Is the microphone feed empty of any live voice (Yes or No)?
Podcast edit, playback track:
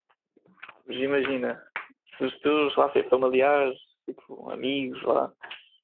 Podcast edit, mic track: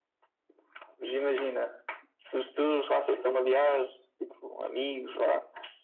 Yes